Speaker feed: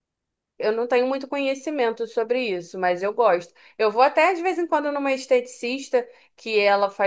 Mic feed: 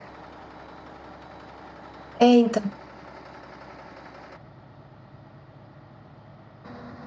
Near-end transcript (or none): É, então.